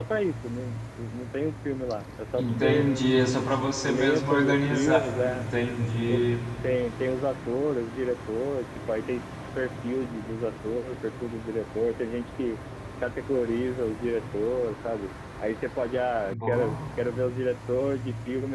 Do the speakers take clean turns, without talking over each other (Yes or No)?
No